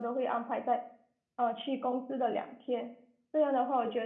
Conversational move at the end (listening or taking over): listening